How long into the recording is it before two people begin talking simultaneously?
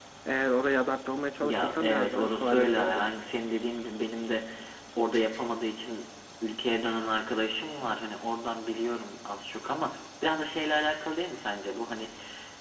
1 s

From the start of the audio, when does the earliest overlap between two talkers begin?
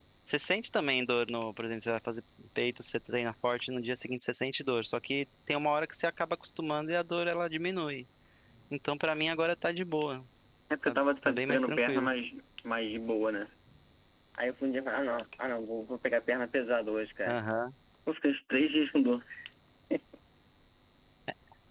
11 s

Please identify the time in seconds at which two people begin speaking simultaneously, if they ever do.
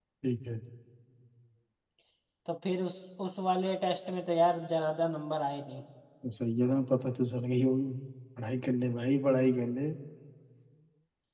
none

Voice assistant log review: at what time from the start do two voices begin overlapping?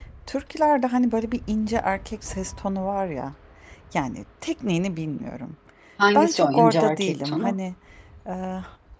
6 s

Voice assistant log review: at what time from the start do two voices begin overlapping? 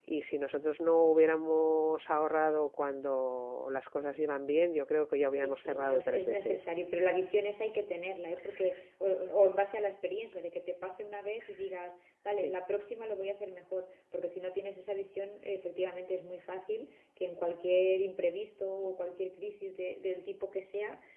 5 s

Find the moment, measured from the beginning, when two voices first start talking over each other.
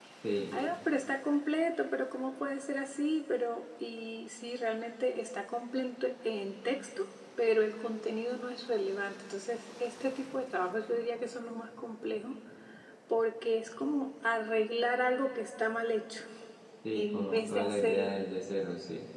17 s

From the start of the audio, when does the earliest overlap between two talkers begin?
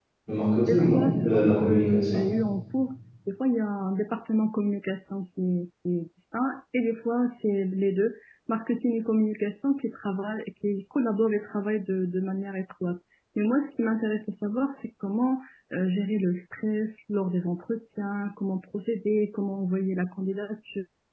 1 s

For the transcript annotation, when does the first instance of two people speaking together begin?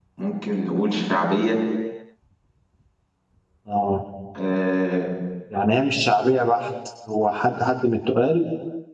none

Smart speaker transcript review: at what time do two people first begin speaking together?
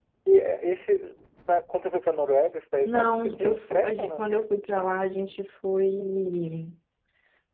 3 s

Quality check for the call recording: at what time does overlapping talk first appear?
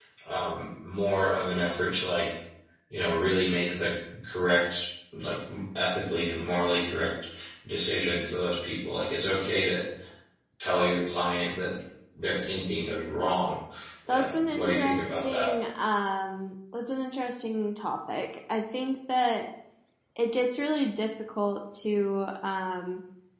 14 s

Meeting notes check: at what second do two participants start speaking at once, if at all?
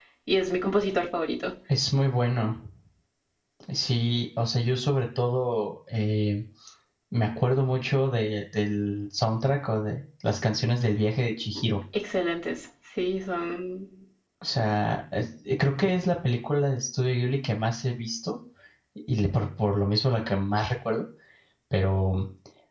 none

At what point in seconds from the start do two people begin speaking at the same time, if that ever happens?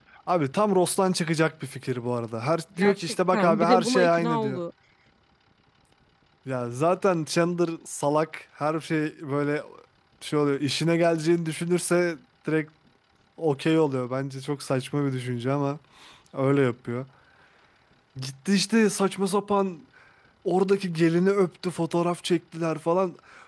3 s

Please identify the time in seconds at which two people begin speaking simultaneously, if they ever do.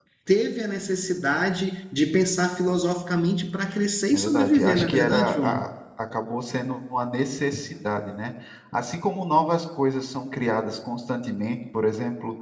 4 s

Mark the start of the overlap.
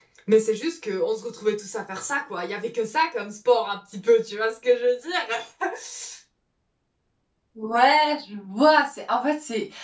none

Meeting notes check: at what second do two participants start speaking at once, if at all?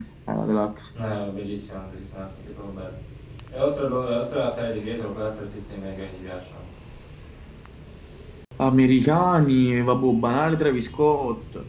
none

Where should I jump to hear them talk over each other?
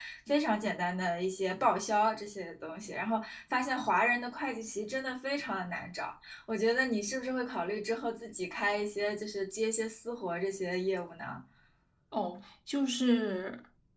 none

